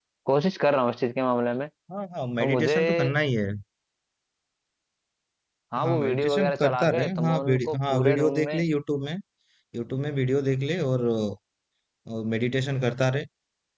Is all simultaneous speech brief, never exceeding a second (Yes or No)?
No